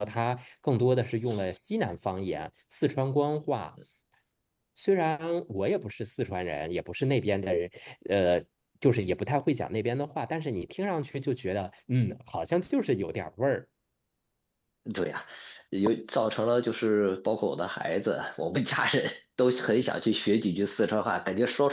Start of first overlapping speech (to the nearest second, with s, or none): none